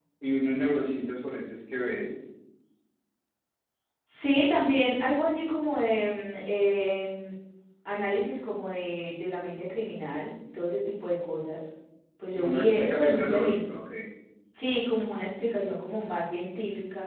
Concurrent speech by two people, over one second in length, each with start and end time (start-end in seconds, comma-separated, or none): 12.3-13.6